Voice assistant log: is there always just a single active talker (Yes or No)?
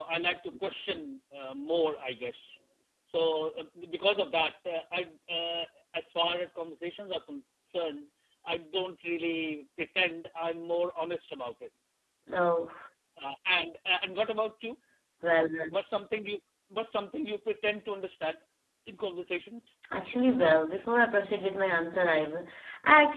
Yes